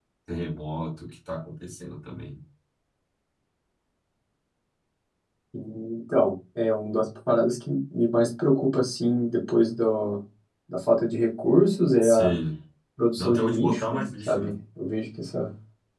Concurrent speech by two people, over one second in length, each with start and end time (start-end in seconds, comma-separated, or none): 13.2-14.5